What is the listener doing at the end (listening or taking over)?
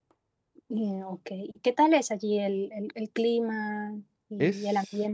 taking over